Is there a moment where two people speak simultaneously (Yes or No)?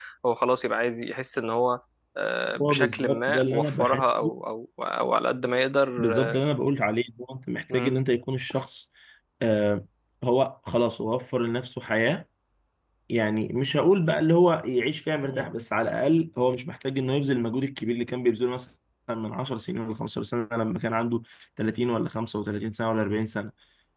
Yes